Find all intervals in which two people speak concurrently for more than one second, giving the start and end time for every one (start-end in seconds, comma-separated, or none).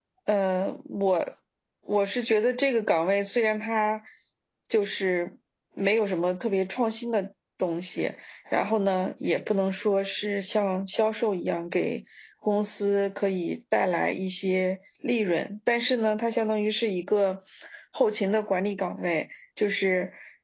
none